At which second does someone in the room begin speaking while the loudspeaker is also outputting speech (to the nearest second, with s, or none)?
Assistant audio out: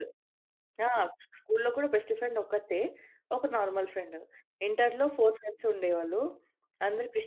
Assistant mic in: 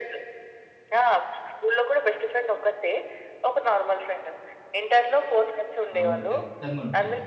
6 s